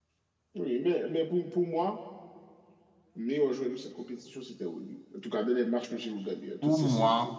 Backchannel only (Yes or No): No